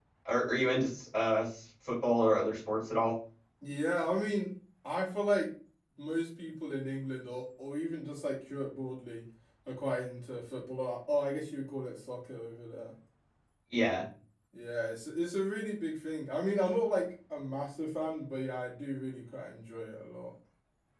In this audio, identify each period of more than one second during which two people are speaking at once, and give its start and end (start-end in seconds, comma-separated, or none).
none